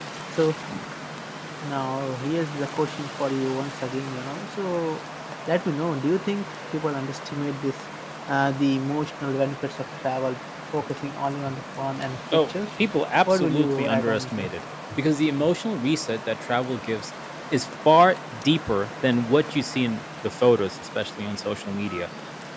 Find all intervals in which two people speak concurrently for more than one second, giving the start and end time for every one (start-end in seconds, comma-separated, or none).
13.3-14.5